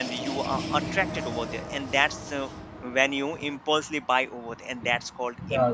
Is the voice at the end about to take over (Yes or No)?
Yes